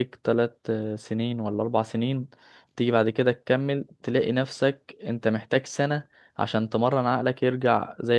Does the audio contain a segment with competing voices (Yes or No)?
No